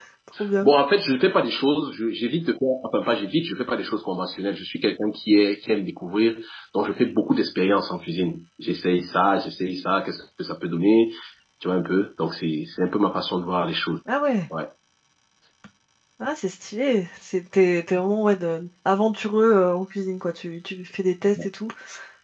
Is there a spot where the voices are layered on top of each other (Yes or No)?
No